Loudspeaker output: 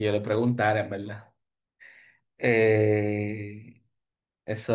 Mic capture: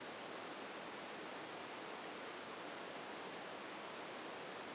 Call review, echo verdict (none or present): none